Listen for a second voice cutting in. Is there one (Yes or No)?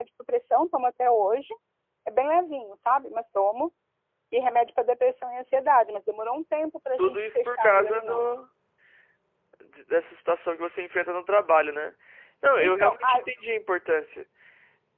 Yes